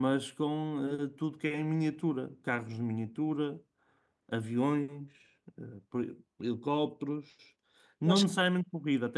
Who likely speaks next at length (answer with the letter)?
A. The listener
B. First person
B